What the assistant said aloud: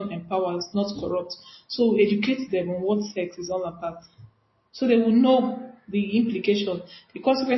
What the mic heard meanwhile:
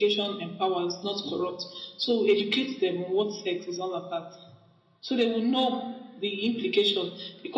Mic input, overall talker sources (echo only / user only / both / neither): echo only